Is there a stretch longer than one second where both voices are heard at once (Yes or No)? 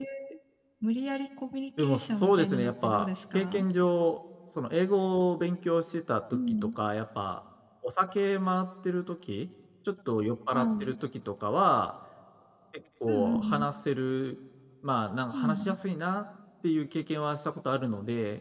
Yes